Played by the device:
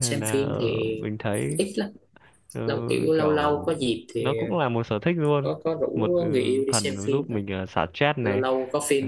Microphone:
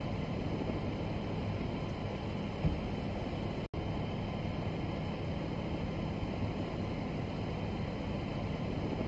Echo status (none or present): none